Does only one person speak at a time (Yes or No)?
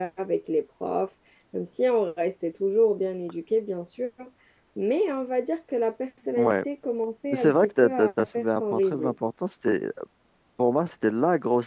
No